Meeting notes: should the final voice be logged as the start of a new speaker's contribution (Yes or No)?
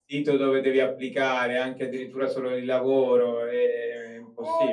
Yes